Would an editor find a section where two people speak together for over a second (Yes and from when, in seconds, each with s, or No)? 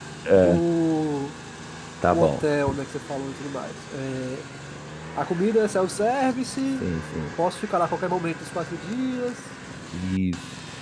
No